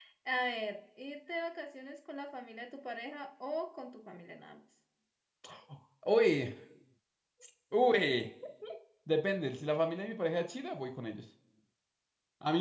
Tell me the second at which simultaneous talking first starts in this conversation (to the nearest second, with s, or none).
none